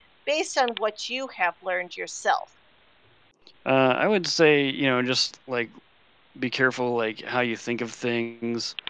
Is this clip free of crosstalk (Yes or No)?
Yes